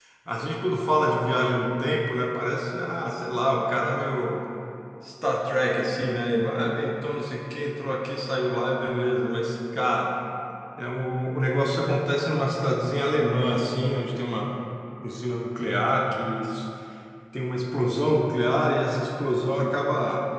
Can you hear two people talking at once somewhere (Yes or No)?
No